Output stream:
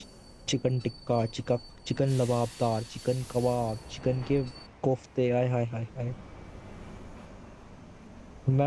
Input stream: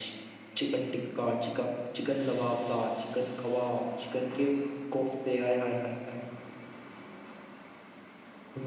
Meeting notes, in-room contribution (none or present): none